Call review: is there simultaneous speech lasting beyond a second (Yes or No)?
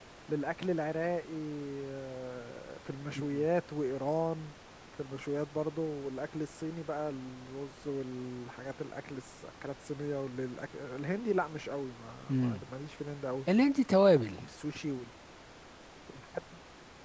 No